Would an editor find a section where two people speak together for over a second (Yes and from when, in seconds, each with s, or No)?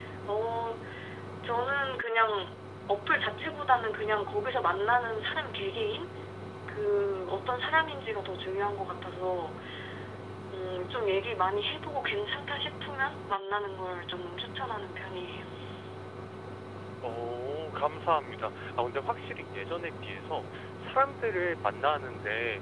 No